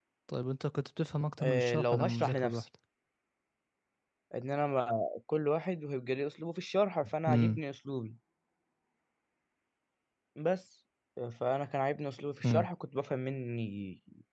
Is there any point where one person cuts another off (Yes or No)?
Yes